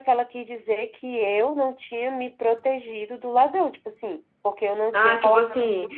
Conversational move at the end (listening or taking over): taking over